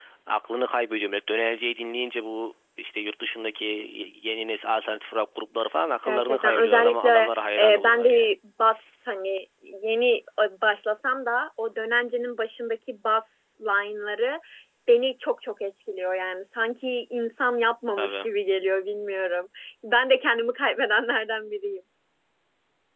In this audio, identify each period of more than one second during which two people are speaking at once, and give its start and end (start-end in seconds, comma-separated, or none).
6.0-8.3